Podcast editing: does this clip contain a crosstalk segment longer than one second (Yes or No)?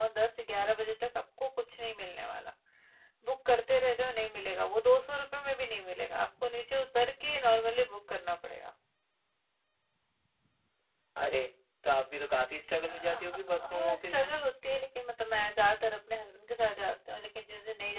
Yes